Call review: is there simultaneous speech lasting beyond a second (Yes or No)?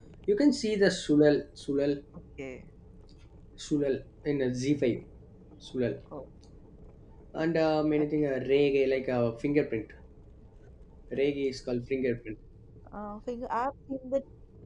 No